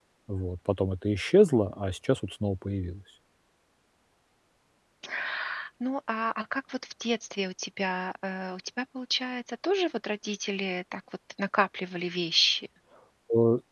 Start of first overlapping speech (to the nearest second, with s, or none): none